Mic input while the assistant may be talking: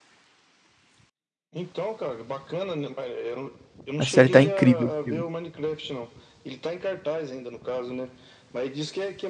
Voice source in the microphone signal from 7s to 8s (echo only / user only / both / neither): echo only